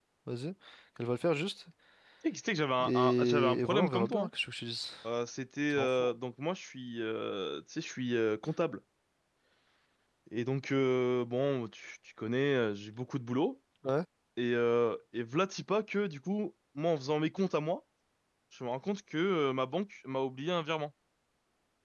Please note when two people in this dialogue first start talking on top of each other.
2.8 s

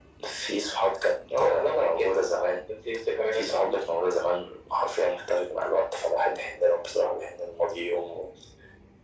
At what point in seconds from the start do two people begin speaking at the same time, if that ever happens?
1.4 s

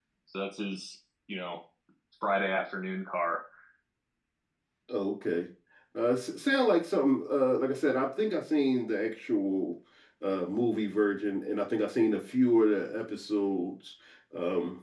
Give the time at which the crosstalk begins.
none

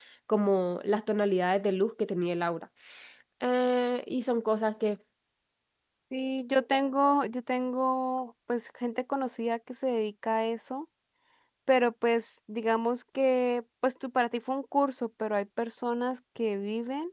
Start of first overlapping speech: none

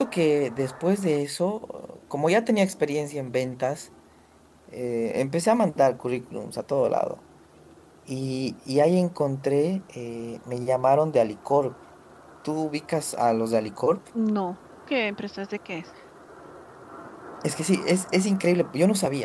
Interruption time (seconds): none

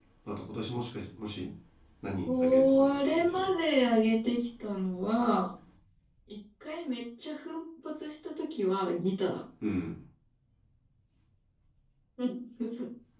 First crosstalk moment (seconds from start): 2.3 s

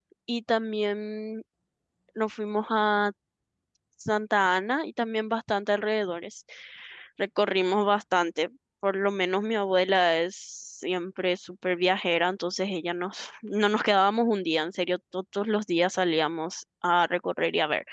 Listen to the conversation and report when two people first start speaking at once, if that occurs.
none

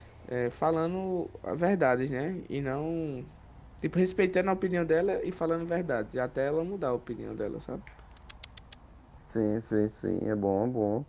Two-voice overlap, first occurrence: none

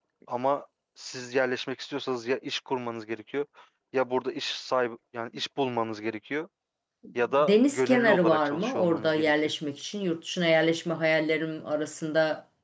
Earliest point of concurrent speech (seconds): 7.4 s

